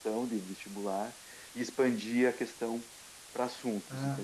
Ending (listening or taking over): taking over